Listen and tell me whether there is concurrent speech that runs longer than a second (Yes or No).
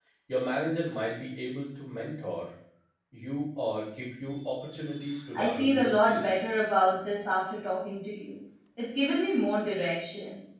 Yes